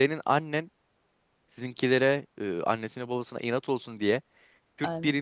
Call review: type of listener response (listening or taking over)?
listening